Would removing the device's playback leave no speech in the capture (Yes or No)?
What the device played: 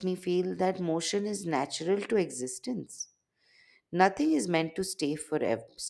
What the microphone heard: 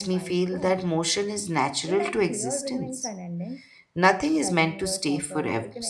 No